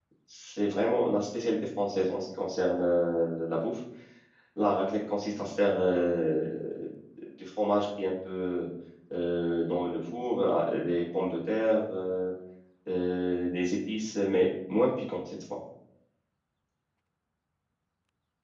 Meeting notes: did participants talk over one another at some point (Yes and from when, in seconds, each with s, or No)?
No